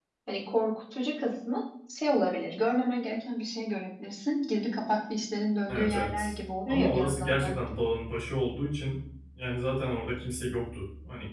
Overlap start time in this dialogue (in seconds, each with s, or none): 5.7 s